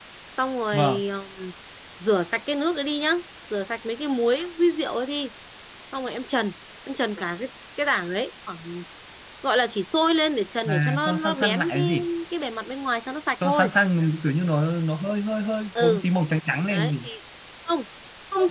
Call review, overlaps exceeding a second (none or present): present